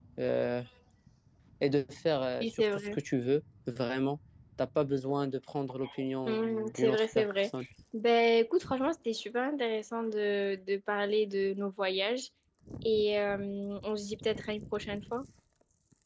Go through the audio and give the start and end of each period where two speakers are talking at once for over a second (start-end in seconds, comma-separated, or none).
6.2-7.5